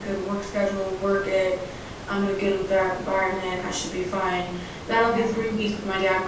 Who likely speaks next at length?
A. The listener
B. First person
B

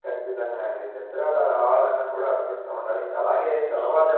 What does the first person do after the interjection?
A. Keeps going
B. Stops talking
A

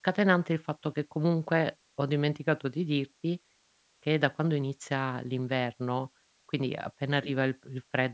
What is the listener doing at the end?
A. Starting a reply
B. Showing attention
B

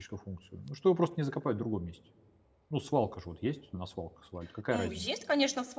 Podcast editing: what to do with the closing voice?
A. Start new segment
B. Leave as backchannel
A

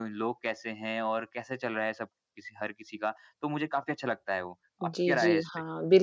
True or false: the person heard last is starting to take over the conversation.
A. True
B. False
A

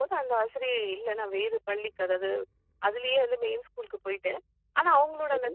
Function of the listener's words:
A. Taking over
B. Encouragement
B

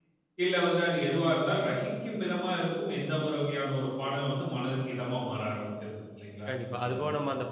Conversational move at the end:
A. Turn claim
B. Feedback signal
A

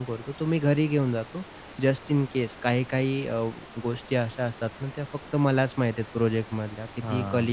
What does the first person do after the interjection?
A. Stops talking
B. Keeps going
B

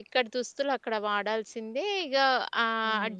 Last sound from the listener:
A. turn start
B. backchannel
B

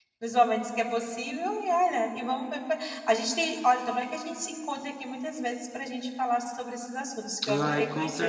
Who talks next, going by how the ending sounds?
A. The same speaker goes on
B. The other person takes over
B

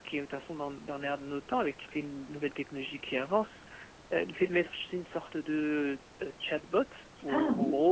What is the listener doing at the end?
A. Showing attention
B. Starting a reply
A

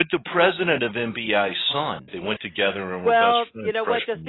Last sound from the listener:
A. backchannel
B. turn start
B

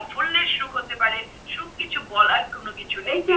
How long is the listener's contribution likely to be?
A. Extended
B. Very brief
A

